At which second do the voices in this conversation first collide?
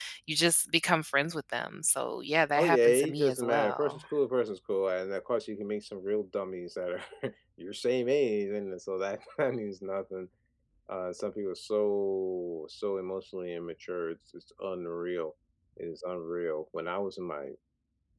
2.6 s

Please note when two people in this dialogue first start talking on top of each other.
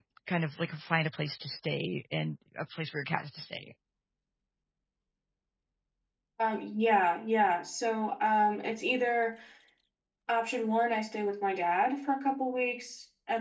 none

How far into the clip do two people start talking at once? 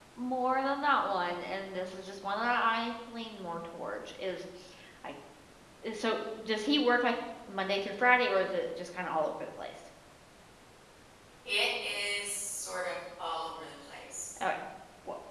none

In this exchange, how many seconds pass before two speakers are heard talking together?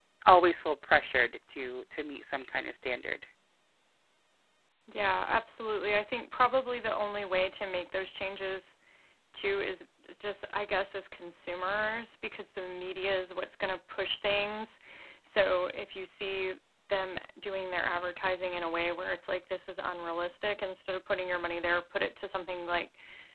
none

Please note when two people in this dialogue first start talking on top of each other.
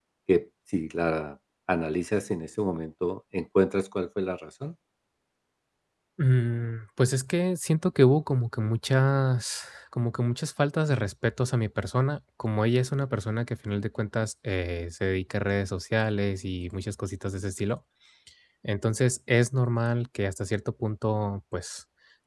none

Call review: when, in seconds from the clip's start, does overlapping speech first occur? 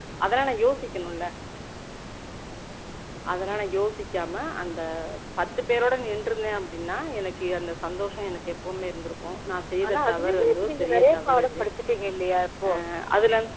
9.8 s

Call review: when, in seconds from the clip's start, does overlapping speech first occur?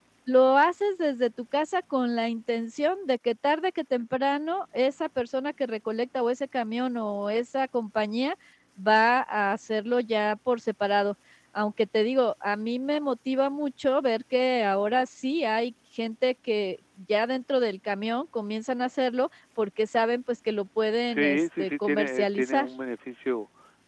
21.1 s

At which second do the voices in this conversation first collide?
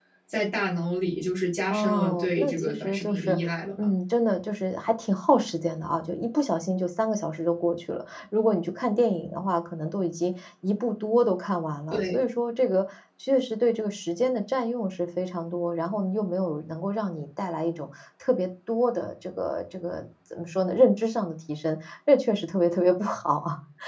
1.7 s

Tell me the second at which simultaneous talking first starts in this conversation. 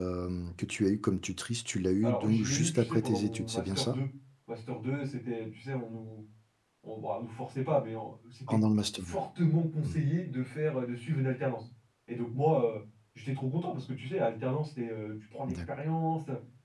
2.0 s

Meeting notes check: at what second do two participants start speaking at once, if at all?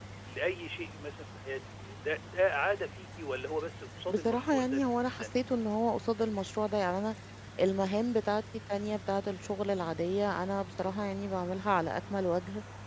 4.1 s

